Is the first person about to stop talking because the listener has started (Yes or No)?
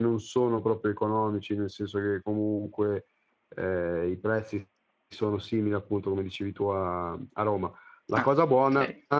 No